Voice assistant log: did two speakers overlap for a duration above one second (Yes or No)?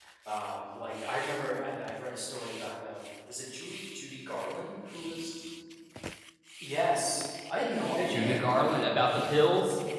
No